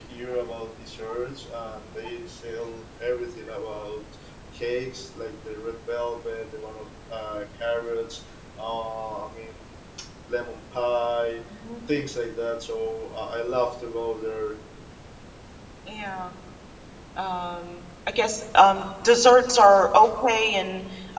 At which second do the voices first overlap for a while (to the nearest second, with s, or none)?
none